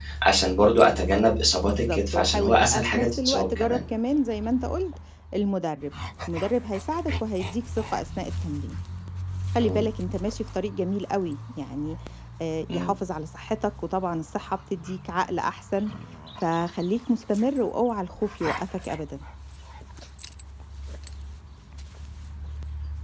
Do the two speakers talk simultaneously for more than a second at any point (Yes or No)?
Yes